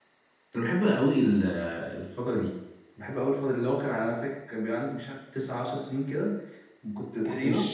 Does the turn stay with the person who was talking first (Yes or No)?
Yes